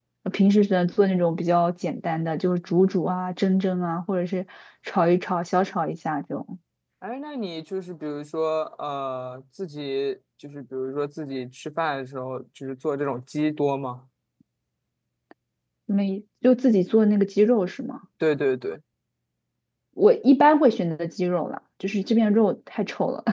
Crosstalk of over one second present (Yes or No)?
No